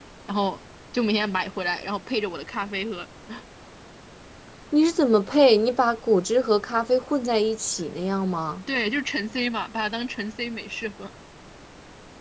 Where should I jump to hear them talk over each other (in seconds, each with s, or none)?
none